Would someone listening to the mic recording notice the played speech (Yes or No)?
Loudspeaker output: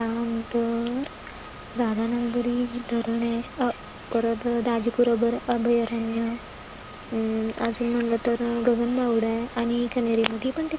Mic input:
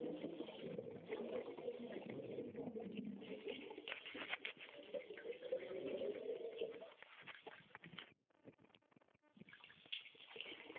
No